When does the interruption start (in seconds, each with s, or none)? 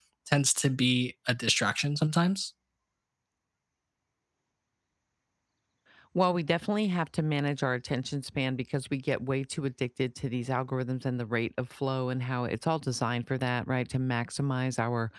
none